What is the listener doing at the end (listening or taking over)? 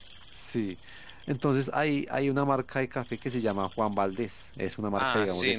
taking over